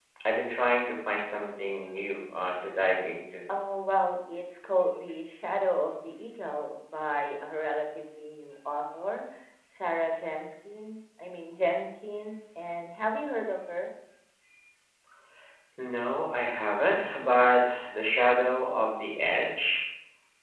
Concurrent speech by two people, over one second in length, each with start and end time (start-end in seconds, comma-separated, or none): none